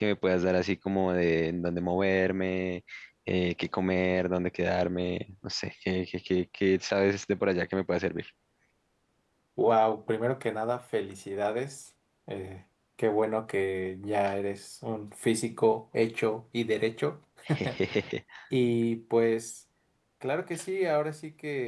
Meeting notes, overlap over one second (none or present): none